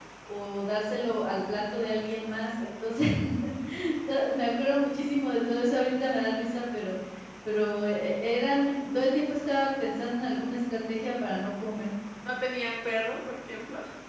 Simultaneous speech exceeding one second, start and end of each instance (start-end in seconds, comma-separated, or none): none